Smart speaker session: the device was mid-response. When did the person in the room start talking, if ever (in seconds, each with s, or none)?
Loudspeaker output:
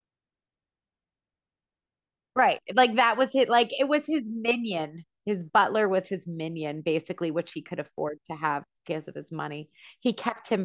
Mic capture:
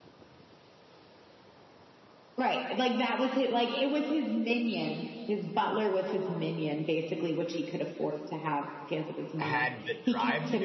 9.4 s